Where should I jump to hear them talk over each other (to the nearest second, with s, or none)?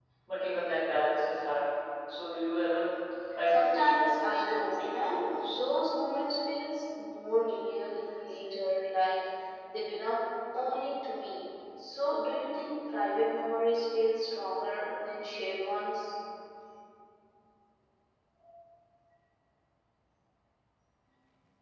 3 s